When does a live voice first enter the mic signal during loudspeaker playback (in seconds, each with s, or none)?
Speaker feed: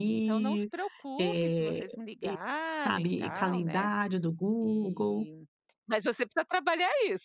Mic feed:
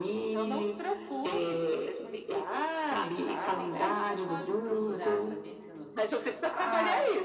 3.7 s